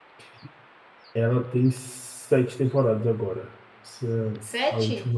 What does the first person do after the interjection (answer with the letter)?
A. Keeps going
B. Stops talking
A